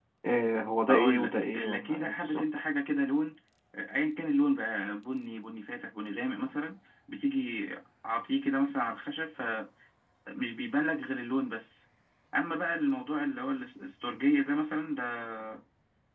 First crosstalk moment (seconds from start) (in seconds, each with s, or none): 0.9 s